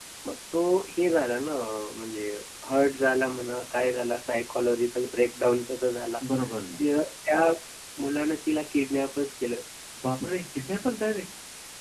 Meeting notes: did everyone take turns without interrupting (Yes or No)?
Yes